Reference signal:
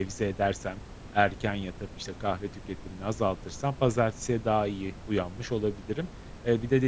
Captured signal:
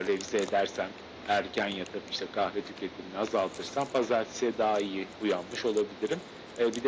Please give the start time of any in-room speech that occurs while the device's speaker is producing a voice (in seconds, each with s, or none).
none